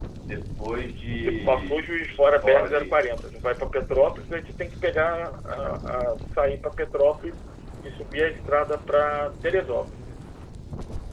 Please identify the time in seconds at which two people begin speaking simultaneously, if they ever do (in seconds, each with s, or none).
1.2 s